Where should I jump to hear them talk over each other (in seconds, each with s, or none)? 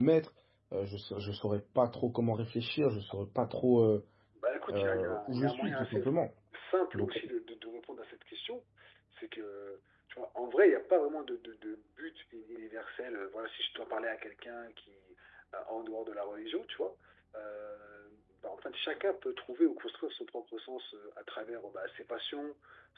4.7 s